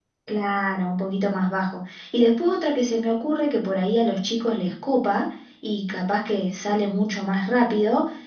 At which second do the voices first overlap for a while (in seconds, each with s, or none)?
none